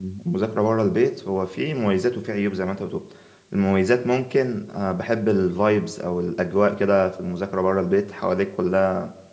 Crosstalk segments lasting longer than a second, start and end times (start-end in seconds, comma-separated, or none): none